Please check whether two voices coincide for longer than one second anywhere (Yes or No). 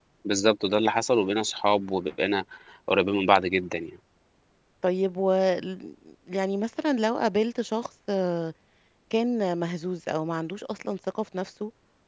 No